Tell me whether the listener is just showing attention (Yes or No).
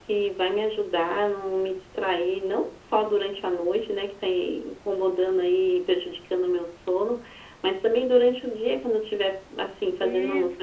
Yes